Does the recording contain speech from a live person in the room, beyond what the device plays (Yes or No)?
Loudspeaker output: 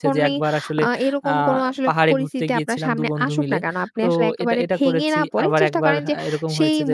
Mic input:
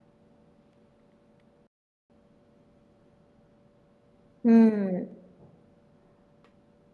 Yes